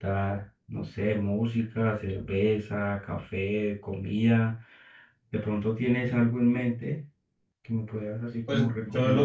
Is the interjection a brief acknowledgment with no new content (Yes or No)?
No